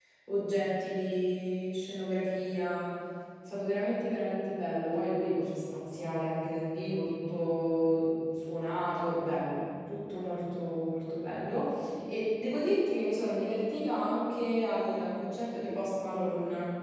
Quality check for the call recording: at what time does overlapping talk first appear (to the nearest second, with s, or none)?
none